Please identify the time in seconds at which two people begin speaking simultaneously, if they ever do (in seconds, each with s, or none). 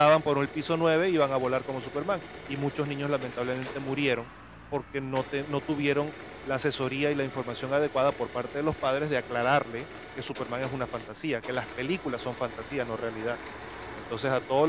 none